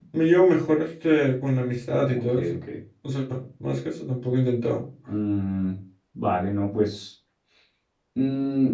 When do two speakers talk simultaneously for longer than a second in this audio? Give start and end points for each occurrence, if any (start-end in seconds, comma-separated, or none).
none